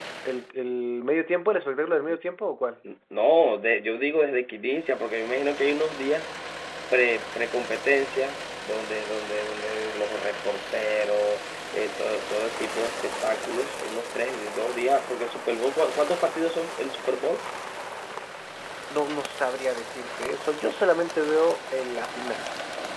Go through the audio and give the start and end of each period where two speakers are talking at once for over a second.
none

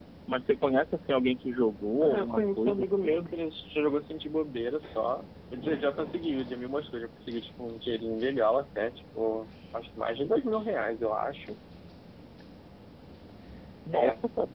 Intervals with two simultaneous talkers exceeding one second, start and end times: 2.0-3.4

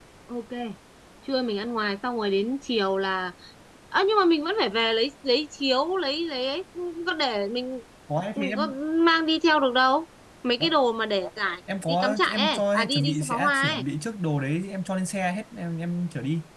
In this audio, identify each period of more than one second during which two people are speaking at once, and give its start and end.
11.9-13.8

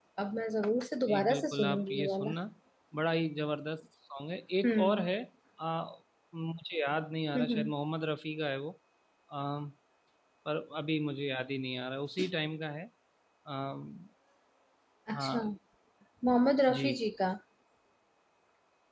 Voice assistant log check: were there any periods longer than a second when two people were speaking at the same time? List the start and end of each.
1.1-2.4

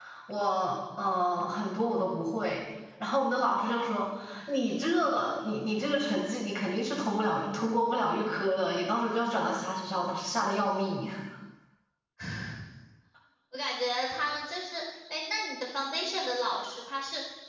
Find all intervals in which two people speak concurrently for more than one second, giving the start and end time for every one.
none

